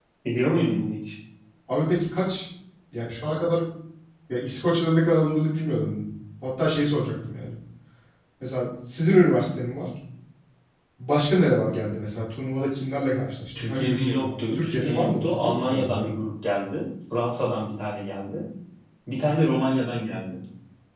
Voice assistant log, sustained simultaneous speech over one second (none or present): present